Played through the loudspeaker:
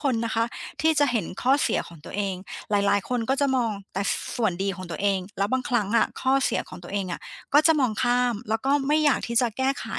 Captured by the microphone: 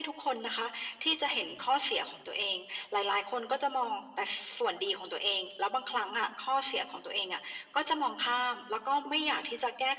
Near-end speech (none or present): none